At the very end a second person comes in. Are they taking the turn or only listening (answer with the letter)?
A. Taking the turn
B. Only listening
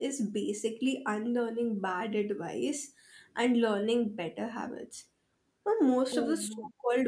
B